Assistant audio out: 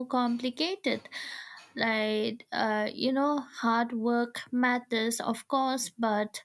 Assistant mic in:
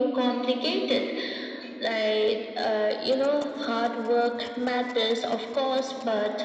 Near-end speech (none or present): none